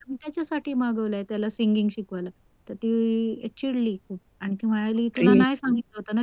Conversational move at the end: listening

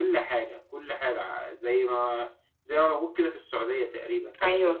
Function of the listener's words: taking over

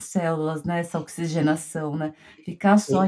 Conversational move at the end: listening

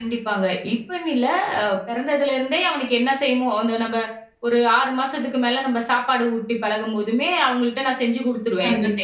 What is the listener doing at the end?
taking over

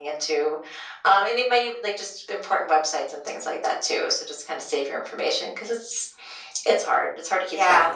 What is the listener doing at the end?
taking over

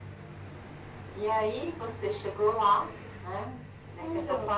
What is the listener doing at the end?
listening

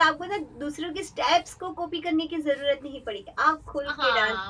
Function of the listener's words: taking over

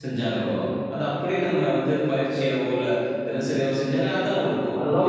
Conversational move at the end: taking over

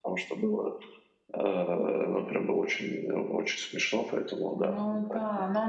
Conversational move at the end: taking over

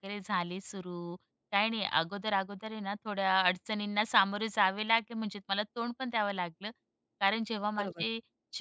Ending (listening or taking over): listening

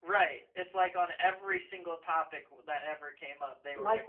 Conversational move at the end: listening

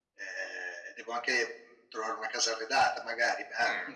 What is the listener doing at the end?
taking over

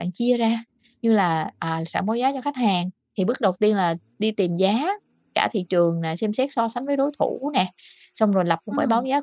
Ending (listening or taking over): listening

